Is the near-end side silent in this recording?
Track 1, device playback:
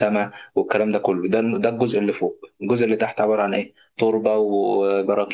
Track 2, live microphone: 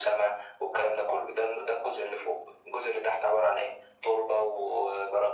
Yes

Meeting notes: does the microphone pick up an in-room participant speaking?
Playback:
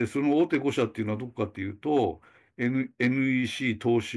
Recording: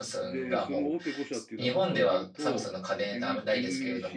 Yes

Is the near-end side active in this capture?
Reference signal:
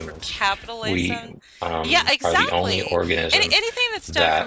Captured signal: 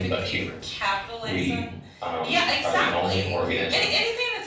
No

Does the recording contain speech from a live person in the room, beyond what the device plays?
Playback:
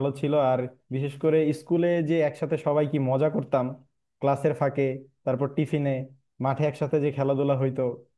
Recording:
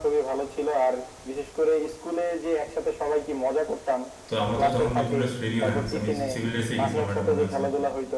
Yes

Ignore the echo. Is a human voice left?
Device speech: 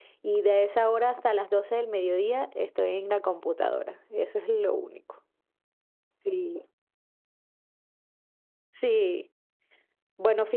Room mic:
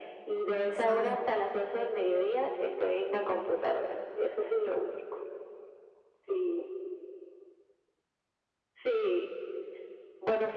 Yes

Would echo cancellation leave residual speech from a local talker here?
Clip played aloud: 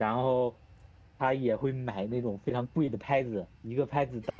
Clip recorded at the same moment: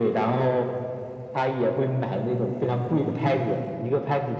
No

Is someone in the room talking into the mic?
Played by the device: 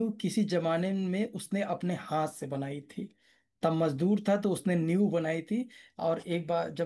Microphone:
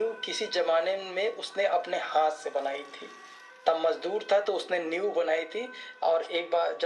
No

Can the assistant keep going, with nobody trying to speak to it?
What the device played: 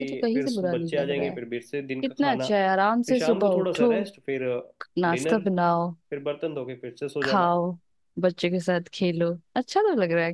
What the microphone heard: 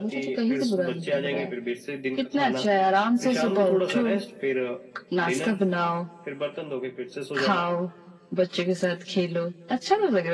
Yes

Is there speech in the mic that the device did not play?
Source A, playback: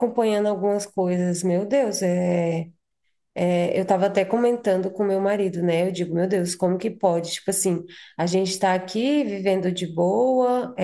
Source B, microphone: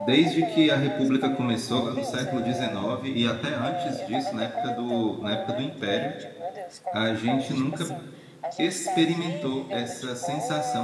Yes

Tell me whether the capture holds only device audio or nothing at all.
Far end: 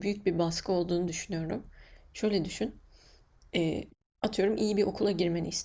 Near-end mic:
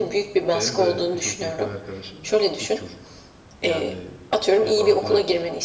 No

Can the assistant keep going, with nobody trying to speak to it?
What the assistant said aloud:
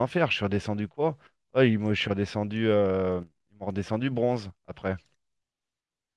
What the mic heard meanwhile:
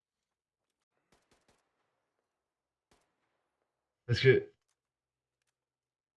No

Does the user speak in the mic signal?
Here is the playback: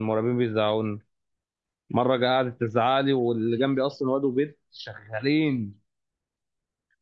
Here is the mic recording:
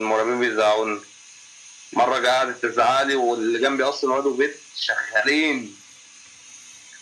No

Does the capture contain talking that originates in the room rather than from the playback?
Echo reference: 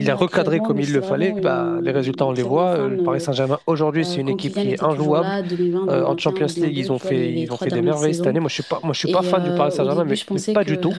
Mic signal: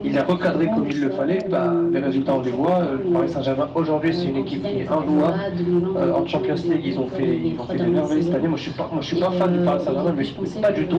No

